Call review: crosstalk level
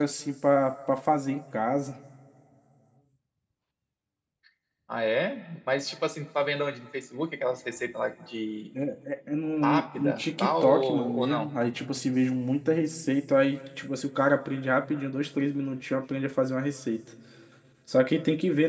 present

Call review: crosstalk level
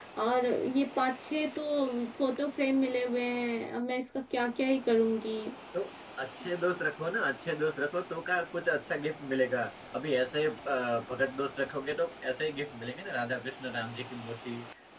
none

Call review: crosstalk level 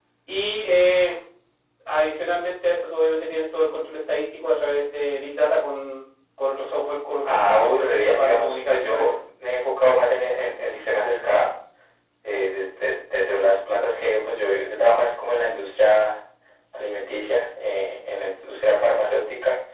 present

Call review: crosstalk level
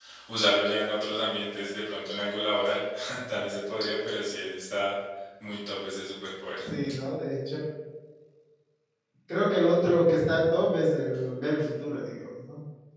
none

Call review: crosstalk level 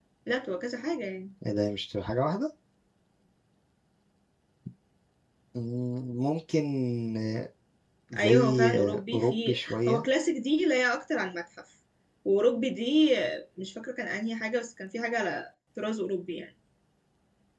present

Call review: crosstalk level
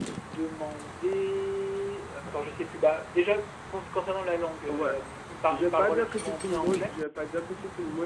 present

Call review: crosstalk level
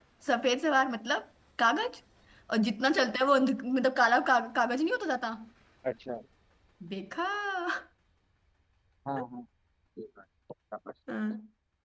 none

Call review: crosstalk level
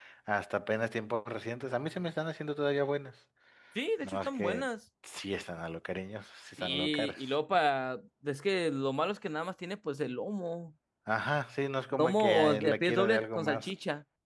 present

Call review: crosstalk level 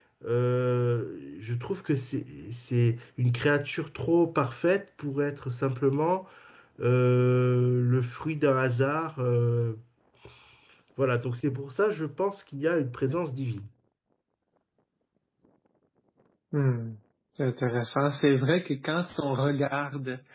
none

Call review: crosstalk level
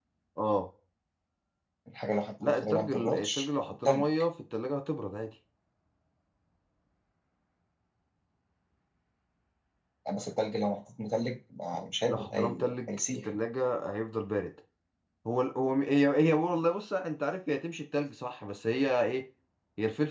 present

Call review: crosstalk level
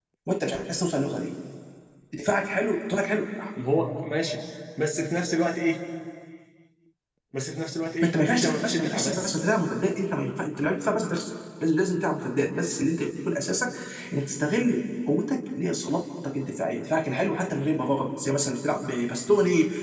present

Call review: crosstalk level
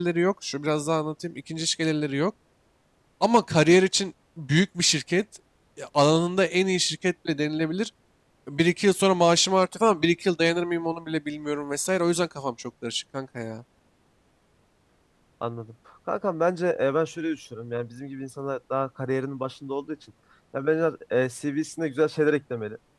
none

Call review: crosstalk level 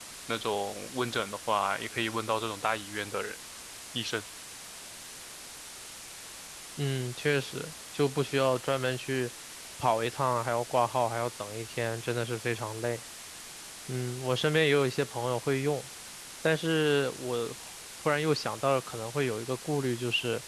none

